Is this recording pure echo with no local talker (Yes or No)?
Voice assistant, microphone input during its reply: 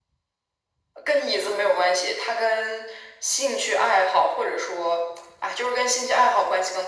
Yes